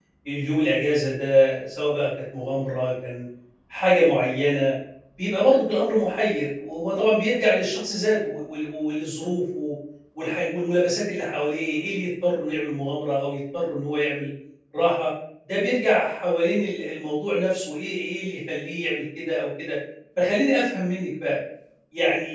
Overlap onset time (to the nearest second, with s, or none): none